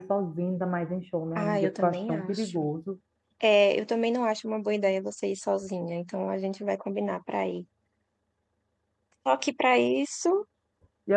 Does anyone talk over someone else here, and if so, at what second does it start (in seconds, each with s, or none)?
1.4 s